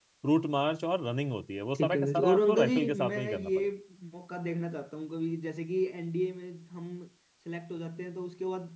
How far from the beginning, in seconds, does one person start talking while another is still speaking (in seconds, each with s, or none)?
1.8 s